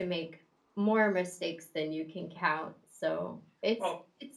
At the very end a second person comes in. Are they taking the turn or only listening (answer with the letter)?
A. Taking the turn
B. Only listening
B